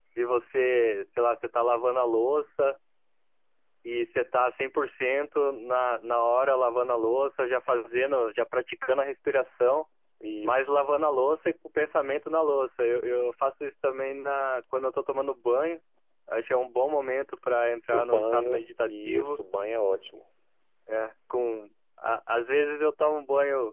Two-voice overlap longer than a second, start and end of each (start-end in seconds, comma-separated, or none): 17.9-19.4